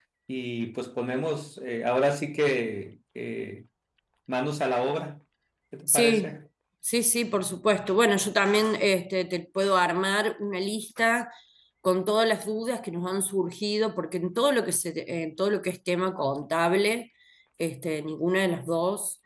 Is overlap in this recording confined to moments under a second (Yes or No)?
Yes